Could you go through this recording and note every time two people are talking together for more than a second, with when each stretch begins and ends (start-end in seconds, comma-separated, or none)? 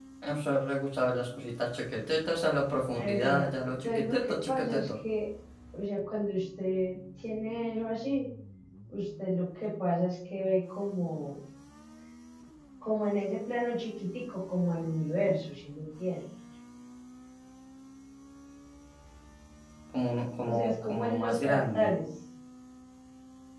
3.0-4.8, 20.4-21.9